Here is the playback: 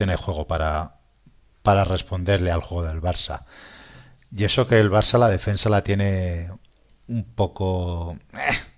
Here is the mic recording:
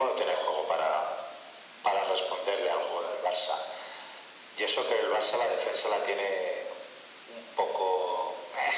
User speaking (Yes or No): No